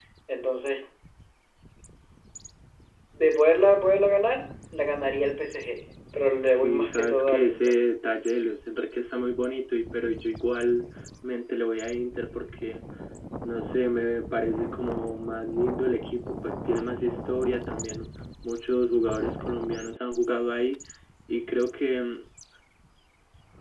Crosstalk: present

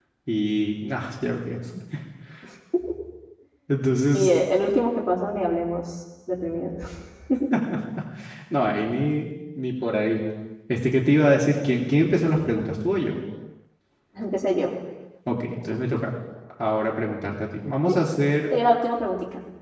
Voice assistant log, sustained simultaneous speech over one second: none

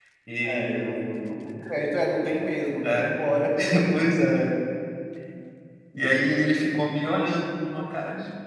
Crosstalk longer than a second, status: none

